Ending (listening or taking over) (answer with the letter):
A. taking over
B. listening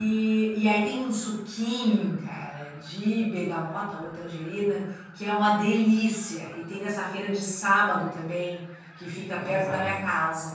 B